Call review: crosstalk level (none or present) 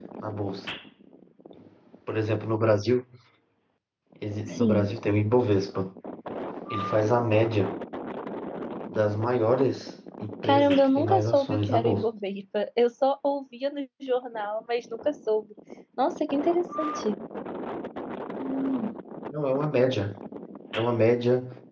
present